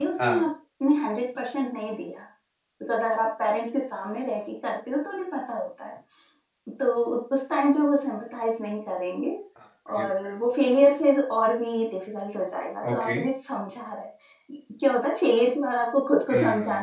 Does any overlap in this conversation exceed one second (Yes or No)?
No